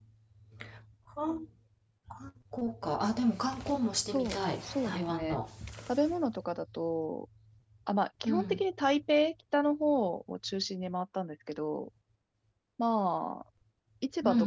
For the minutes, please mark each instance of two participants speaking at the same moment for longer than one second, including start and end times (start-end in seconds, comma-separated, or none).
4.1-5.4